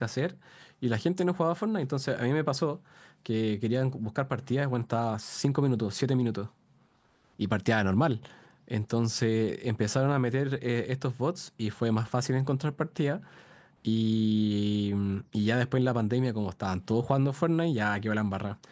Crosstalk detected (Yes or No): No